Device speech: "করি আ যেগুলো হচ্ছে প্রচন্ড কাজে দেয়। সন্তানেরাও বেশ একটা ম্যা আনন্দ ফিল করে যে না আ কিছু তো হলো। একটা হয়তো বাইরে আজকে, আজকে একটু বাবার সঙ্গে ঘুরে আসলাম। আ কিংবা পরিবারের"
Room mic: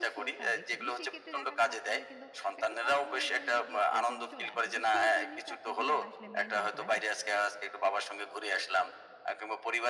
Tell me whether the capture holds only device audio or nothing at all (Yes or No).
No